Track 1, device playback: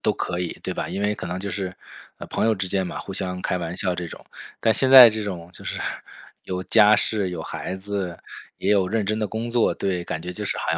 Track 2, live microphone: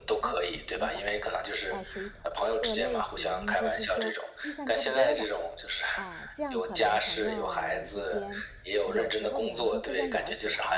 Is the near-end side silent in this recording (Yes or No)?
No